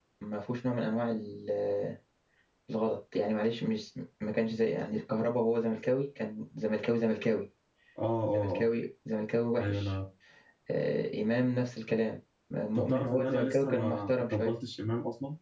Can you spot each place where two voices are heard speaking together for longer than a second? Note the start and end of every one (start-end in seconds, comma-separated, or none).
12.8-14.6